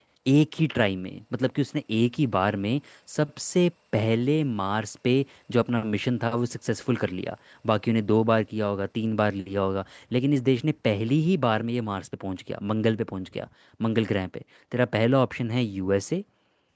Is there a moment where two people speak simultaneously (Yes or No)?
No